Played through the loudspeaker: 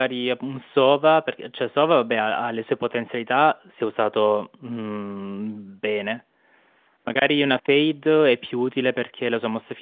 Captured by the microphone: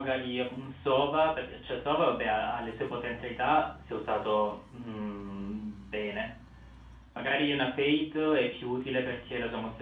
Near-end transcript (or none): none